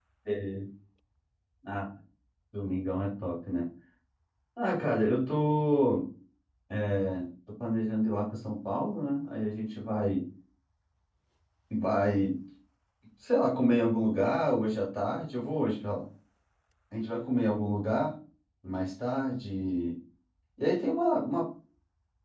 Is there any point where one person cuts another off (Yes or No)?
No